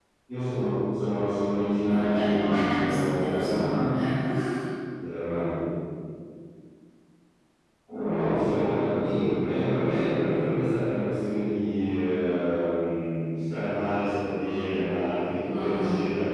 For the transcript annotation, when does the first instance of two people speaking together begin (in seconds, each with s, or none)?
1.9 s